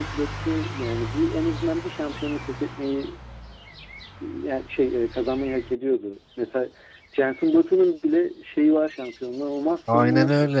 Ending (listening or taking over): taking over